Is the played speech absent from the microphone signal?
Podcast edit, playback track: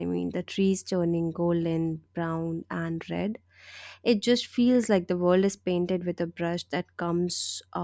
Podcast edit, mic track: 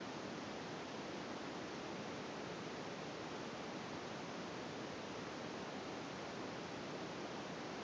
Yes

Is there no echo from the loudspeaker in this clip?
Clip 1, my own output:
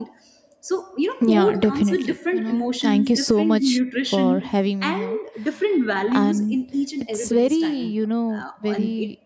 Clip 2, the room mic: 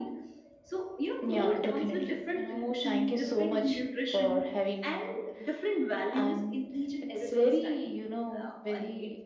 No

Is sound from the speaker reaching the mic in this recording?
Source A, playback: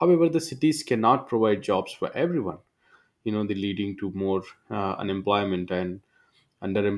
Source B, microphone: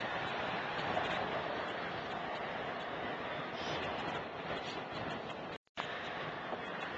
No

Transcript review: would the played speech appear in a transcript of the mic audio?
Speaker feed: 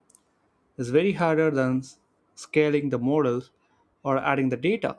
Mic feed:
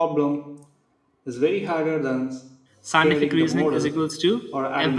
Yes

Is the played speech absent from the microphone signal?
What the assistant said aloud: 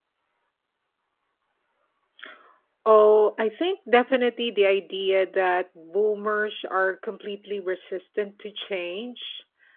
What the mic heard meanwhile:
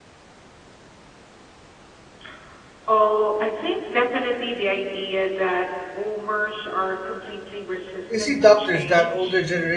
No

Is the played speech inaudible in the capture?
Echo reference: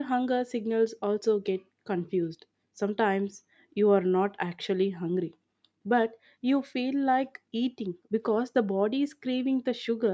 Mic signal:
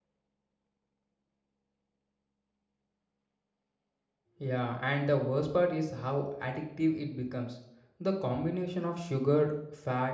Yes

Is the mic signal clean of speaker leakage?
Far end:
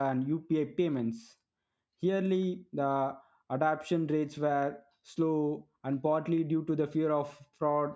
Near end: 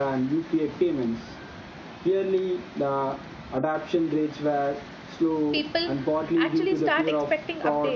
No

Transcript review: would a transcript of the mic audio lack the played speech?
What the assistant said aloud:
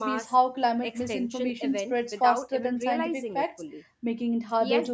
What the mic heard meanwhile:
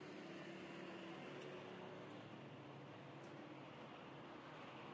Yes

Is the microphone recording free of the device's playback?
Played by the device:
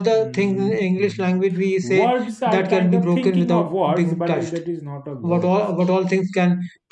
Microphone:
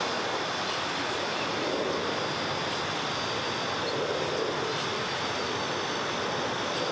Yes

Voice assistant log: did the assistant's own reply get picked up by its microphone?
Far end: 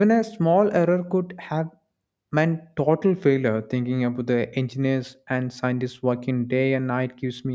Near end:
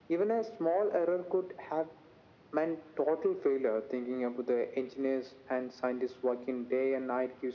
Yes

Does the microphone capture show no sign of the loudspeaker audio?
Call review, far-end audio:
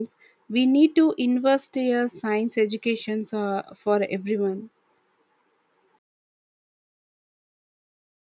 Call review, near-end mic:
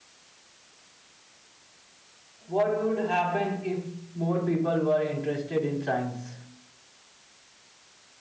Yes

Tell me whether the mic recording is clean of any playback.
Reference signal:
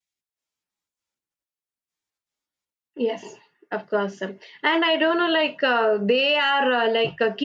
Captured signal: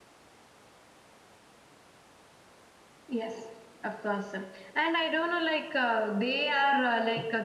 No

